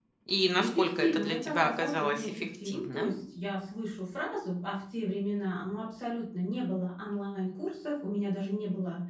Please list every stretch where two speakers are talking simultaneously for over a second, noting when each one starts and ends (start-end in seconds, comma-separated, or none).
0.6-3.1